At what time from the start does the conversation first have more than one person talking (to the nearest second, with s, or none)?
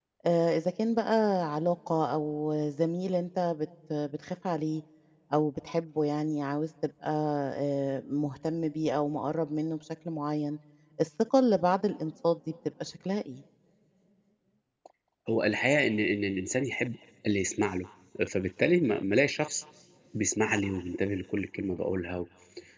none